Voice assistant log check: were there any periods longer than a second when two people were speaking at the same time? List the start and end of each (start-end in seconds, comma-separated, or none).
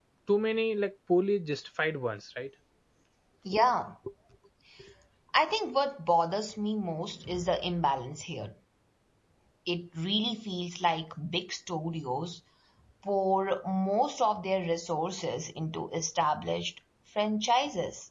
none